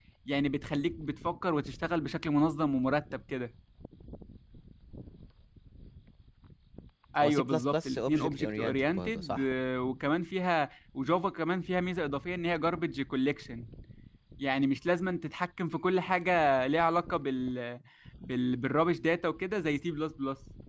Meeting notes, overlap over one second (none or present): present